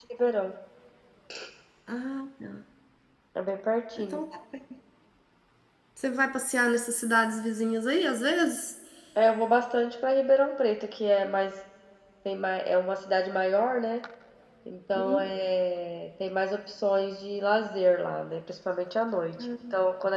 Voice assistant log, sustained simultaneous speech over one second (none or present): none